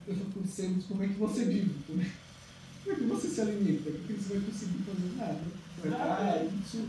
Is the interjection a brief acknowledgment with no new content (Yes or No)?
Yes